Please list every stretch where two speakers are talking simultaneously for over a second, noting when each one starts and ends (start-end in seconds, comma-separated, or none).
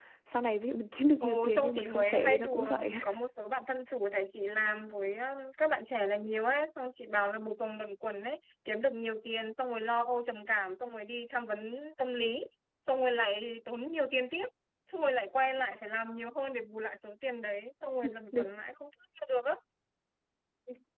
1.2-2.9